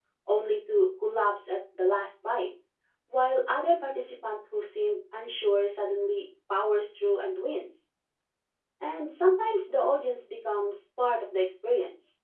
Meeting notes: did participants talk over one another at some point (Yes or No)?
No